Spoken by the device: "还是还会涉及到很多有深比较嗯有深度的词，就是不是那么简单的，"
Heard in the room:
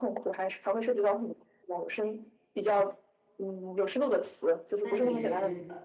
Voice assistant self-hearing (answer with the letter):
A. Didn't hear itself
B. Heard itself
B